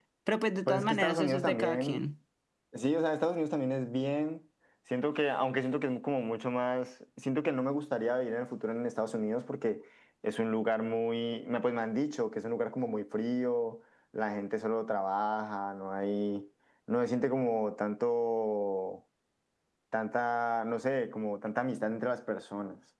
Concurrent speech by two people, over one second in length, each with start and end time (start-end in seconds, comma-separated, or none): 0.7-2.0